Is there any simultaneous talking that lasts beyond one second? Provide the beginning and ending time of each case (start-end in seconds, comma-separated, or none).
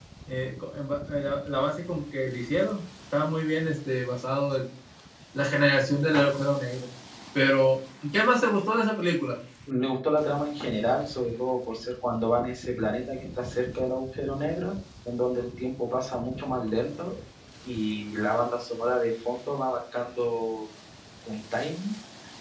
none